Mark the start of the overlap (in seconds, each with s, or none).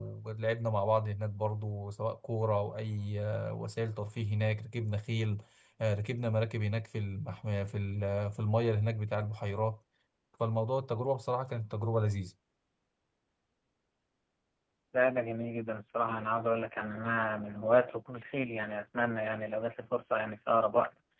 none